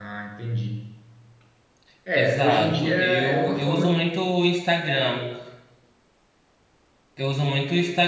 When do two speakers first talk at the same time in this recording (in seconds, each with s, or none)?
2.2 s